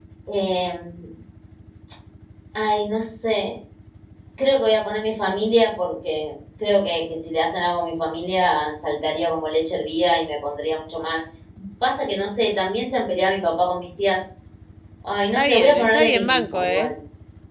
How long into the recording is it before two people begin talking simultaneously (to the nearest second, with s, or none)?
15 s